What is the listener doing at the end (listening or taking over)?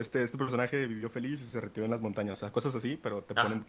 listening